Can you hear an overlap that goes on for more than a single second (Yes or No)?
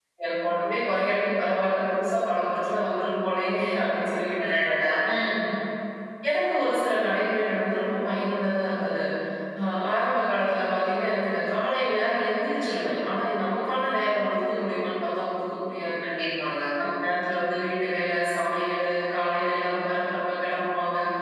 No